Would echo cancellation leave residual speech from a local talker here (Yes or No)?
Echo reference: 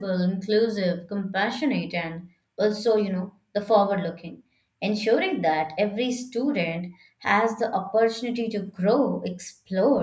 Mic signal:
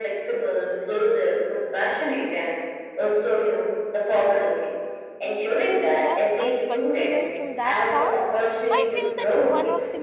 Yes